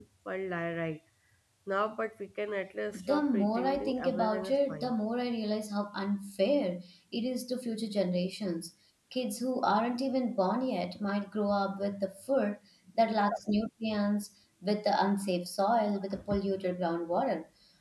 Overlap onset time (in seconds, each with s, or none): 2.9 s